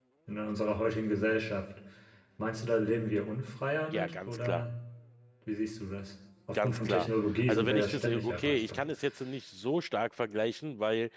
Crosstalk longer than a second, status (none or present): present